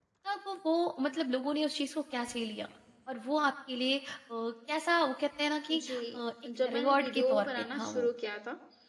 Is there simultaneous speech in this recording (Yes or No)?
Yes